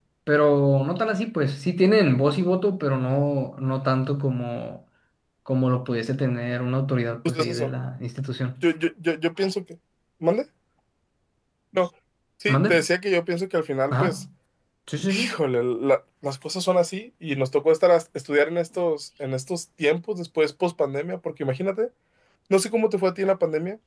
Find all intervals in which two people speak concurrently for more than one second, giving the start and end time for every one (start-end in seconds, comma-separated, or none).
none